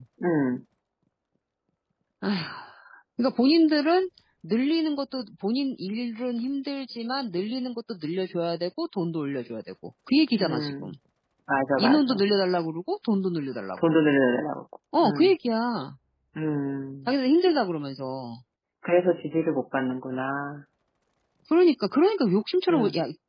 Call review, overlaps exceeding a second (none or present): none